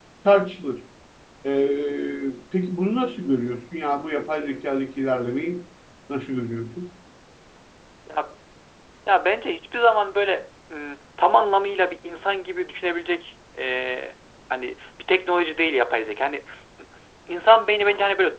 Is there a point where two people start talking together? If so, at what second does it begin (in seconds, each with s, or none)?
none